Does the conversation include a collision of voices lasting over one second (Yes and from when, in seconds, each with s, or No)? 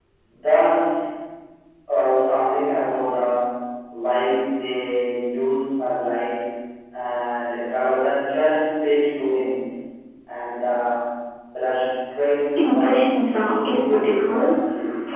Yes, from 12.6 s